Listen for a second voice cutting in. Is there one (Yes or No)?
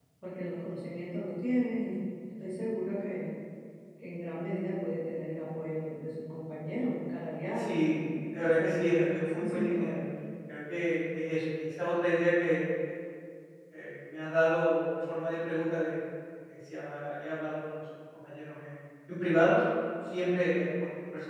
Yes